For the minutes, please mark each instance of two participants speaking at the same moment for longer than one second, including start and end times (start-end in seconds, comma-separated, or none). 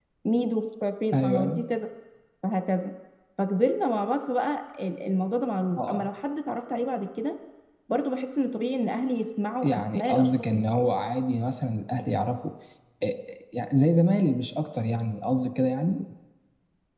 9.6-10.8